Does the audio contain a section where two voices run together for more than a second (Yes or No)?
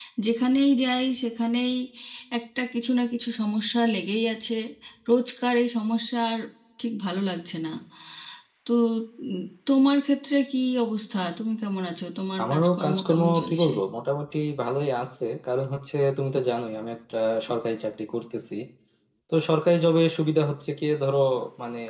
Yes